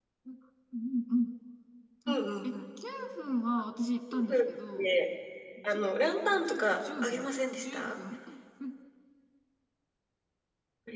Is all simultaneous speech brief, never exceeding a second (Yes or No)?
No